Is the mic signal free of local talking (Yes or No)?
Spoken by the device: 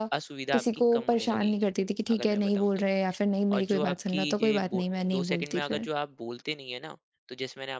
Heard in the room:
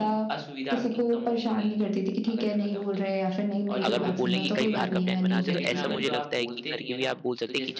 No